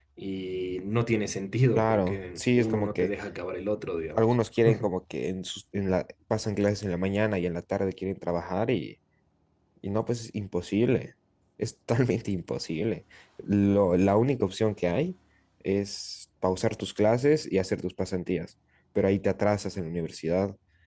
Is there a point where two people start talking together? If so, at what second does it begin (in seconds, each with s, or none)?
1.7 s